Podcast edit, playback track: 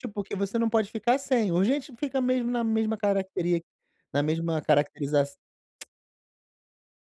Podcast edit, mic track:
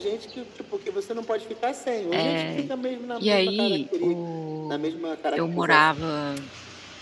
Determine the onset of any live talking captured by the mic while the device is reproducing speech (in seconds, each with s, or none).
2.1 s